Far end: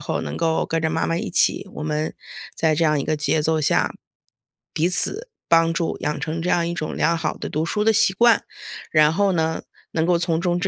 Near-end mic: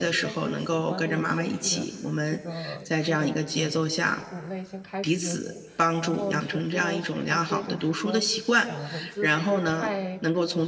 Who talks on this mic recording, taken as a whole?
both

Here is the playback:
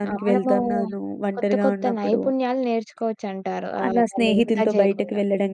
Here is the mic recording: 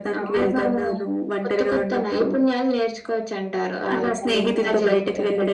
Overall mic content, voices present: both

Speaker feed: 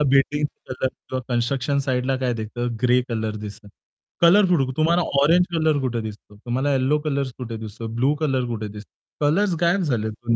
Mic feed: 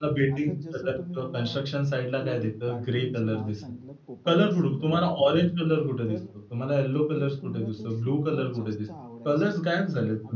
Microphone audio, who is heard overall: both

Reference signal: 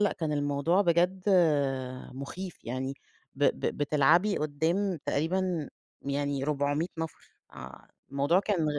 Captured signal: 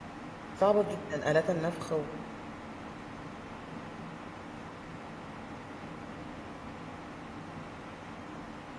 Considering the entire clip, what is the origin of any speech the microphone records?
user only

